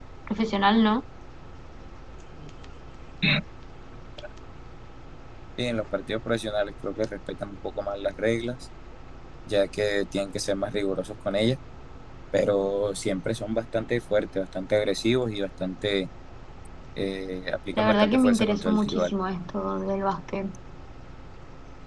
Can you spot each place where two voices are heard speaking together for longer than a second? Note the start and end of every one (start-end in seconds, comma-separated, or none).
17.7-19.1